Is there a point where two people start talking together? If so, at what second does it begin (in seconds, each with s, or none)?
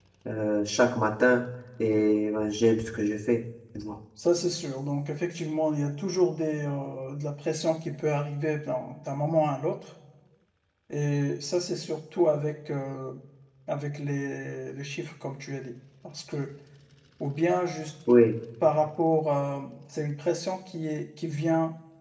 none